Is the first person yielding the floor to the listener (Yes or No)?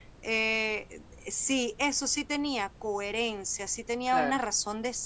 No